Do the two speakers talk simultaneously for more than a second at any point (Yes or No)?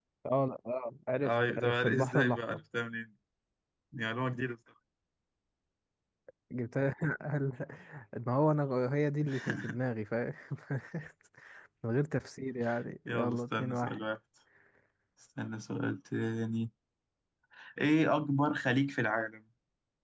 Yes